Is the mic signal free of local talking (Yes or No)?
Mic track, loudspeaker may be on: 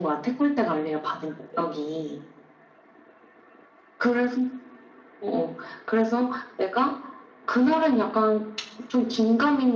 Yes